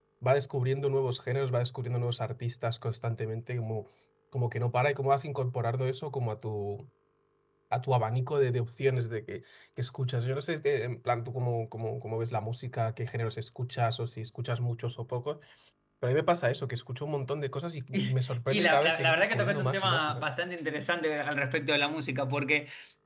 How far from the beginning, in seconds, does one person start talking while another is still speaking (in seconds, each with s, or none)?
17.9 s